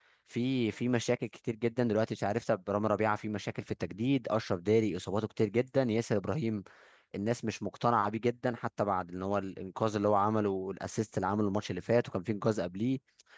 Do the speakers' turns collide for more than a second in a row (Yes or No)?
No